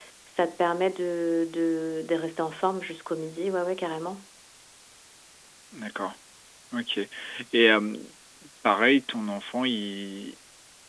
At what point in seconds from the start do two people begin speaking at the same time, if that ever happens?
none

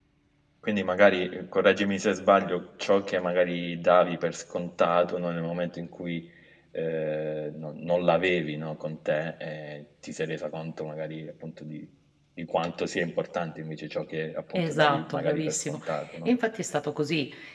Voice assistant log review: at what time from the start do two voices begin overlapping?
14.5 s

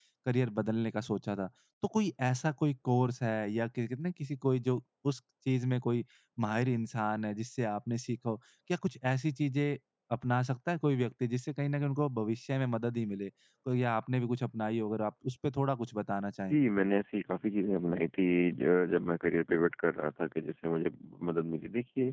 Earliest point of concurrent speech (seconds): none

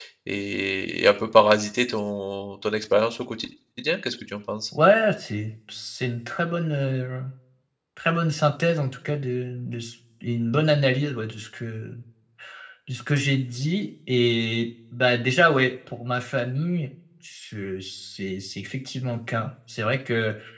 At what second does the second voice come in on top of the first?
none

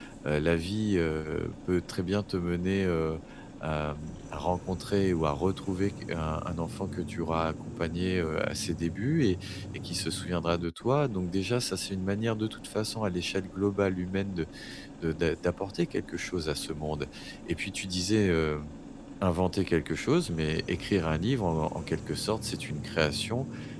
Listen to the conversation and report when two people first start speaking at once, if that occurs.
none

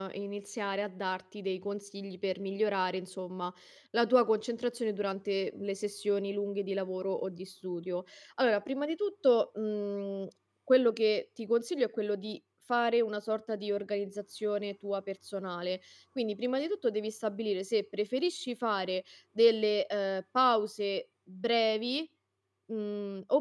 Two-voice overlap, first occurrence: none

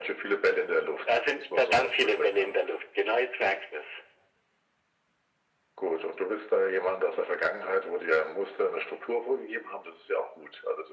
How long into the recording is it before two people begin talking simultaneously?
1.1 s

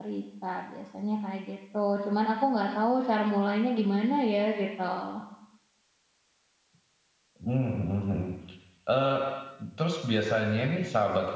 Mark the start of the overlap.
none

